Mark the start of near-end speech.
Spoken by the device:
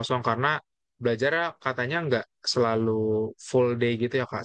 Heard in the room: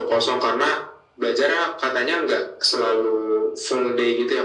none

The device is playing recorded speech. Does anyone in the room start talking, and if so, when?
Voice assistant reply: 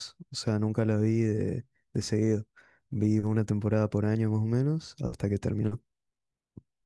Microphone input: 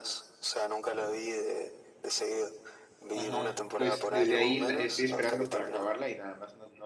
3.1 s

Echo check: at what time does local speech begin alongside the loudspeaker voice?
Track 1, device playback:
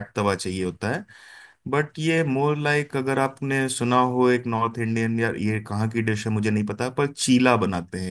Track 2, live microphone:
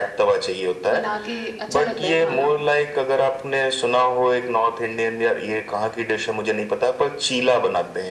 0.9 s

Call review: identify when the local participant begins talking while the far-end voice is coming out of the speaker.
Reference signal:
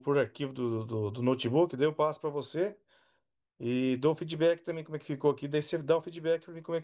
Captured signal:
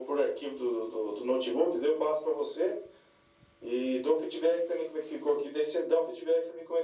none

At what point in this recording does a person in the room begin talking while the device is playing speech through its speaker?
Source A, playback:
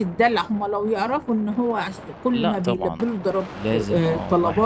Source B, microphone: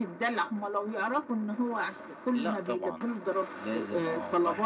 none

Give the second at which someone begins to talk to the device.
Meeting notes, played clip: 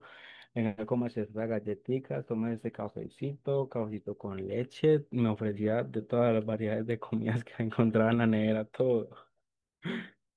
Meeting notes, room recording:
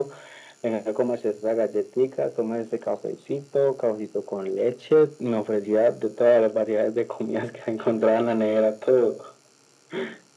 none

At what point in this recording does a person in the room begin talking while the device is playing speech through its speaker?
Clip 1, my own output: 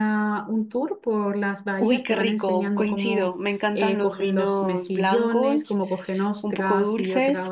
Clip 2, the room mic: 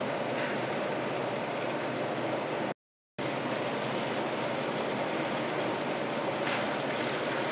none

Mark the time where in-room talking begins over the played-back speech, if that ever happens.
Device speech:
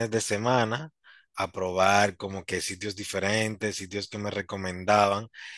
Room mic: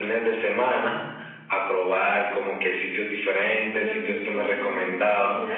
3.7 s

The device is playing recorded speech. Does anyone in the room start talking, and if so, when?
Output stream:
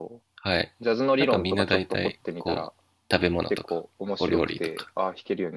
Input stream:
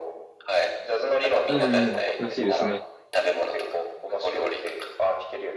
1.4 s

